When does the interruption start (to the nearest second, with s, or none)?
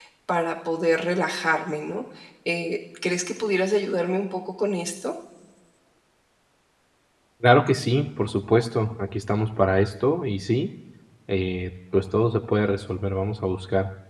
none